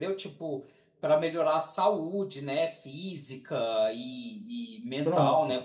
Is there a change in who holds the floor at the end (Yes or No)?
No